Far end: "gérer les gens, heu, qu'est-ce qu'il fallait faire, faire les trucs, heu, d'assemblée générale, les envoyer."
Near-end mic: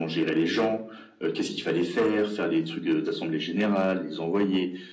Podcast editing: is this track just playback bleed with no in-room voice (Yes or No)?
Yes